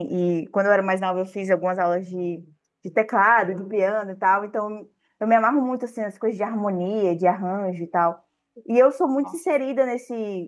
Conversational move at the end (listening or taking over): listening